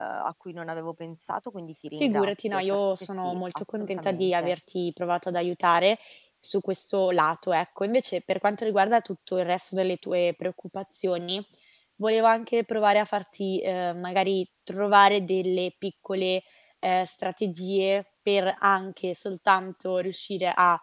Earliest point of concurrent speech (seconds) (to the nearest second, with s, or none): 2 s